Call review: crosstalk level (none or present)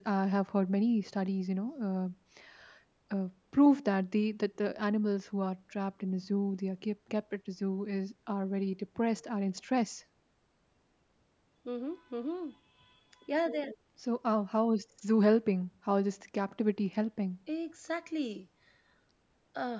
none